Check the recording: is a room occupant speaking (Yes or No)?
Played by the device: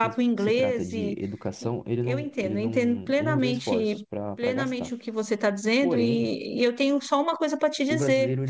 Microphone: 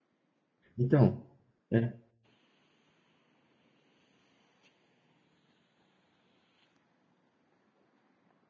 Yes